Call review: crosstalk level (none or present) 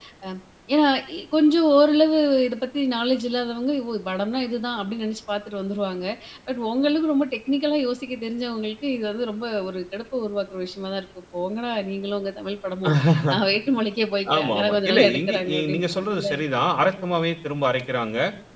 present